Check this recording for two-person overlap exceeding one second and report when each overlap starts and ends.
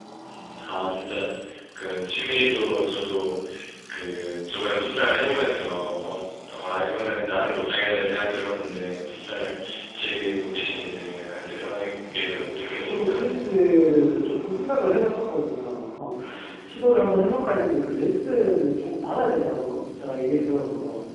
12.1-13.4

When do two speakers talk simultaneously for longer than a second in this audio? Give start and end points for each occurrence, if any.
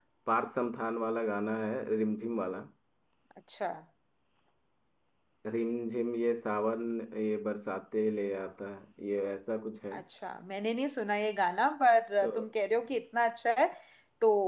none

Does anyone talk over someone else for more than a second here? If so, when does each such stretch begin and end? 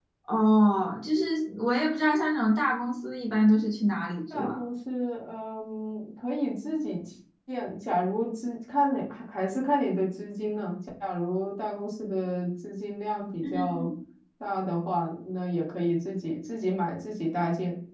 none

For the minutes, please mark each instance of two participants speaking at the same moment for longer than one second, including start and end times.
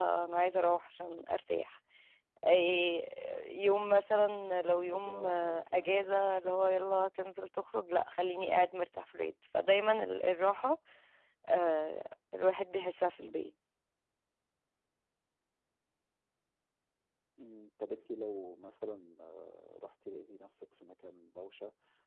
4.8-6.1

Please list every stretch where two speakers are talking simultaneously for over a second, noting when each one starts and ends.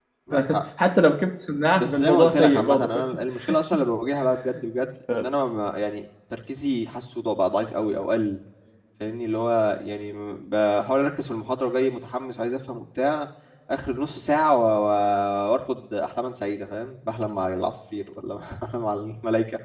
1.8-3.0

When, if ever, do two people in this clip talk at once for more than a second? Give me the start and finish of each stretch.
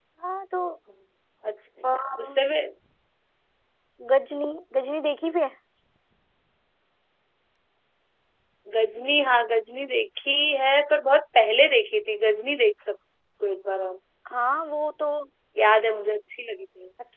none

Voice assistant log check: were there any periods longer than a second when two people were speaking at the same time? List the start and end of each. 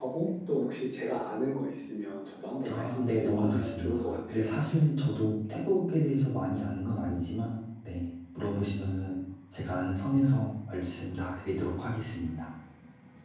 2.7-4.7

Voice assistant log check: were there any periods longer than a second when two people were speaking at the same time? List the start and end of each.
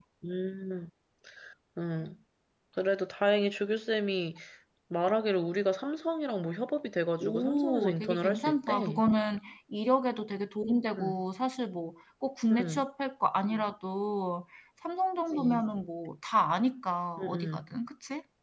7.2-9.0

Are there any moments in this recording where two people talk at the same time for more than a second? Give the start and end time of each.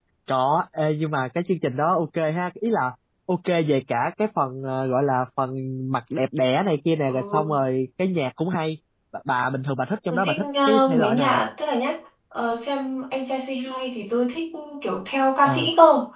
10.1-11.4

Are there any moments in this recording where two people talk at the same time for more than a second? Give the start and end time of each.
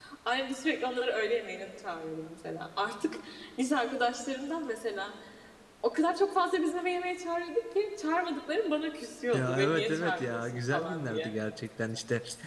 9.3-11.3

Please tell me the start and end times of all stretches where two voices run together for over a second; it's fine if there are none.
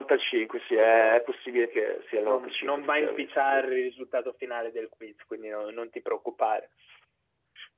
2.2-3.6

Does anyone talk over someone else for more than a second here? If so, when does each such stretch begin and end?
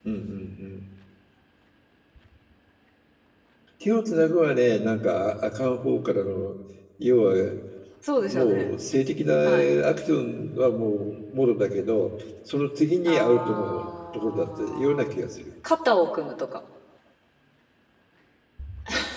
13.1-15.1

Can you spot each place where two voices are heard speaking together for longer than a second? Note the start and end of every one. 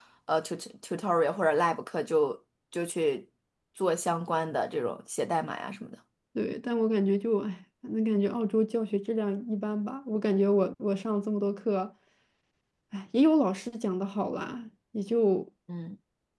none

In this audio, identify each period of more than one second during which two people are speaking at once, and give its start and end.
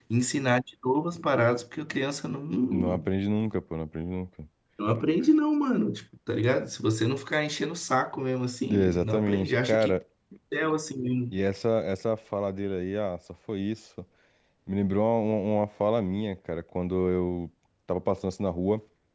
8.7-9.9

